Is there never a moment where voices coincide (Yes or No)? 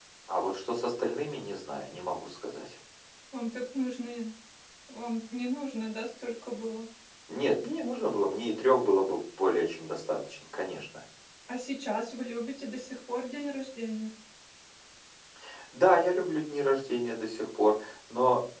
Yes